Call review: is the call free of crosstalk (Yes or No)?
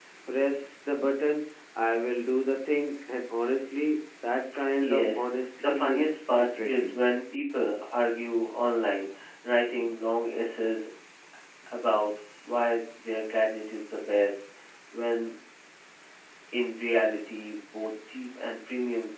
No